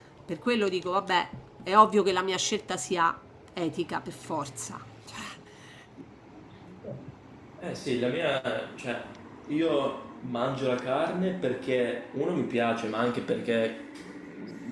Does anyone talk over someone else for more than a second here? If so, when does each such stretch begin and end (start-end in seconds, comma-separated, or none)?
none